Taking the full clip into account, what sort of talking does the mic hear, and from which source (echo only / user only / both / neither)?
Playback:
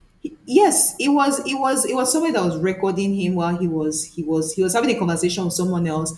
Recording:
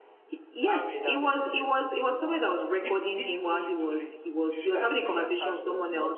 both